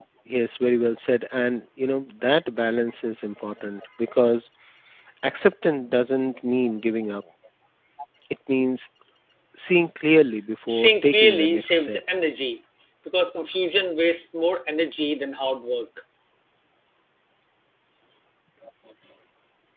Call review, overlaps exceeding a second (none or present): present